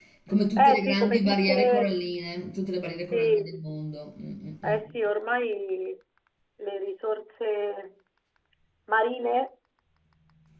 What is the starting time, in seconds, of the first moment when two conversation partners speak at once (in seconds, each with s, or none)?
0.6 s